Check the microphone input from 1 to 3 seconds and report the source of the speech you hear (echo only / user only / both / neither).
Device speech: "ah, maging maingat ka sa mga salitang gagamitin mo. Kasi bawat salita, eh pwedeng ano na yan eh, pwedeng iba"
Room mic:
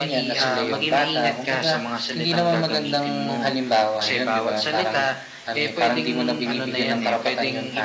both